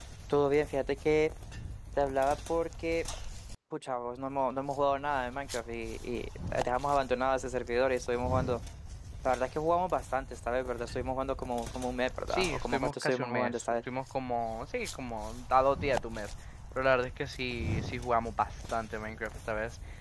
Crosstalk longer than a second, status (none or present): present